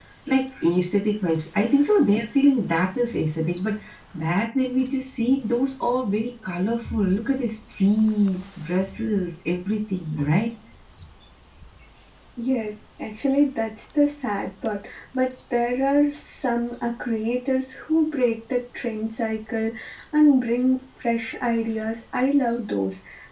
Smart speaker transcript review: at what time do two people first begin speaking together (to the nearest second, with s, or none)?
none